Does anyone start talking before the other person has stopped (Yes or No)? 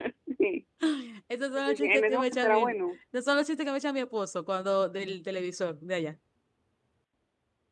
Yes